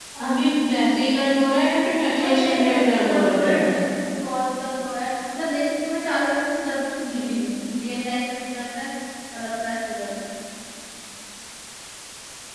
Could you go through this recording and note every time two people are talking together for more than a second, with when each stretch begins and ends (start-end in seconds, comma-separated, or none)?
2.1-3.6